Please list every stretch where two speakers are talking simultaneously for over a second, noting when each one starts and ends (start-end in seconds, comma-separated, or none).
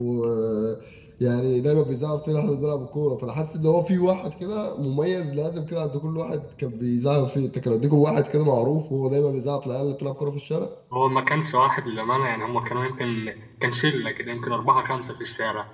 none